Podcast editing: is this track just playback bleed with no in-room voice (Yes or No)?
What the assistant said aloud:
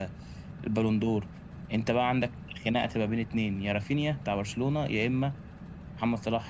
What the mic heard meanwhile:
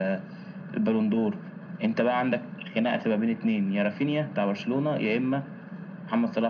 Yes